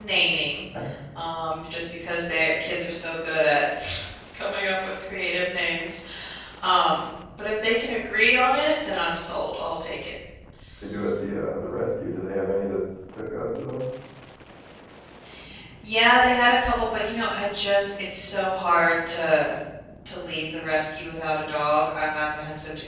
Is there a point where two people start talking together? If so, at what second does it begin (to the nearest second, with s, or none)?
none